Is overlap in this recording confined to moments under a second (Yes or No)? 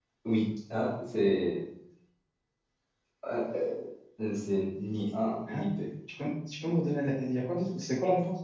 Yes